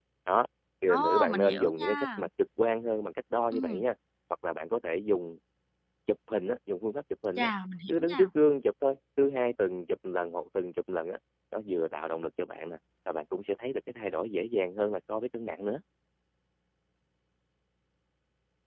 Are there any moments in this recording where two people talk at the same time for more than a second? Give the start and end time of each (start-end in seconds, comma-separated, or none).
0.9-2.2